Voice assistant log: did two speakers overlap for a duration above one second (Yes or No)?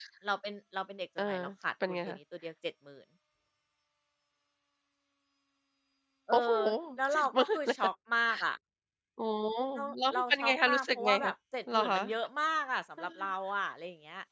Yes